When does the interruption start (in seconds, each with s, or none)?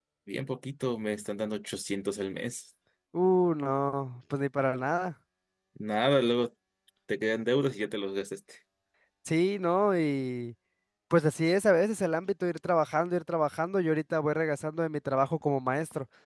none